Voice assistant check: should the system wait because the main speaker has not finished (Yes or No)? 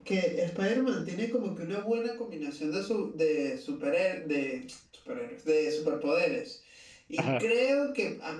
Yes